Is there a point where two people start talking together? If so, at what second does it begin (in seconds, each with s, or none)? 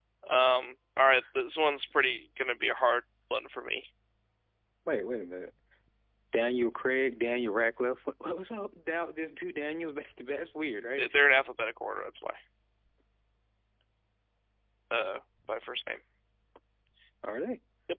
none